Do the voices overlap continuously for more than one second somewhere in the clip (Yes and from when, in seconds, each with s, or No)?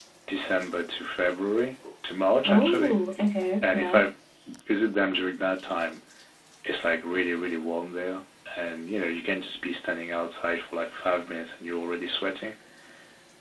No